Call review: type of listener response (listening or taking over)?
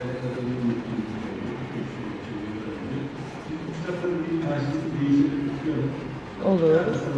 listening